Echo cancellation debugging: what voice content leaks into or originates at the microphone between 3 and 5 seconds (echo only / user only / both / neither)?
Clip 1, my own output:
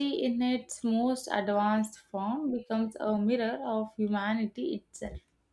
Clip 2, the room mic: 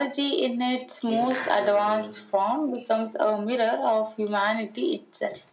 echo only